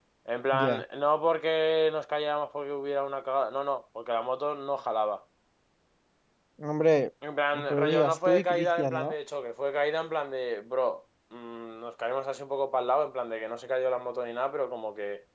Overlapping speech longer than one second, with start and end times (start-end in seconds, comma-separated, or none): 7.7-9.2